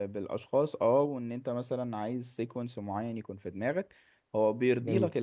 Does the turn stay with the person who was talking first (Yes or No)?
Yes